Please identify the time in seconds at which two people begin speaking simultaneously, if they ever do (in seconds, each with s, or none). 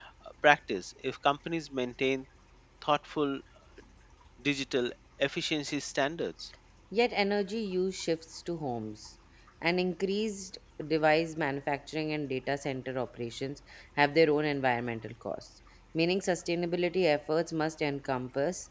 none